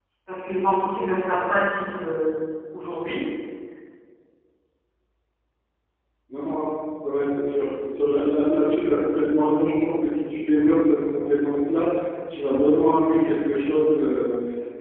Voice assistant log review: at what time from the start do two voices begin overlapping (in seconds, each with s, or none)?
none